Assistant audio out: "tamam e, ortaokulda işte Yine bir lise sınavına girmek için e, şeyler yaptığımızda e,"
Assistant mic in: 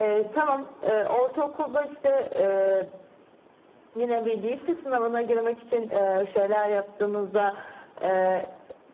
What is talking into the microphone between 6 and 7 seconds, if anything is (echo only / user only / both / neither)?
echo only